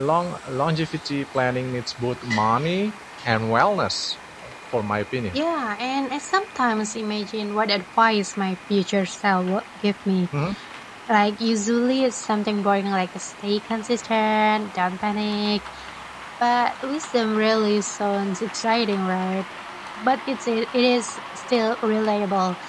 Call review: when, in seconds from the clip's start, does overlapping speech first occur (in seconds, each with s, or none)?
none